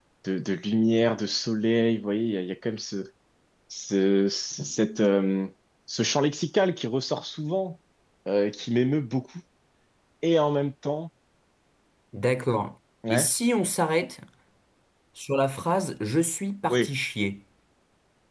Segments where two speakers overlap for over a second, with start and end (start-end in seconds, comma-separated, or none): none